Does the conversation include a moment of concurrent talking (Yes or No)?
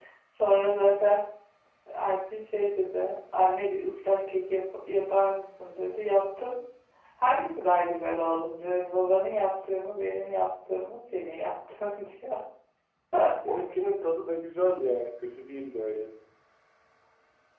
No